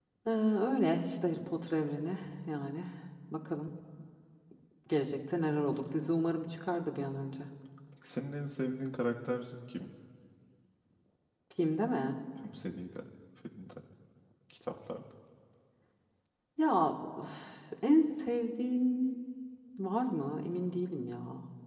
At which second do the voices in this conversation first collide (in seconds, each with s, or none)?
none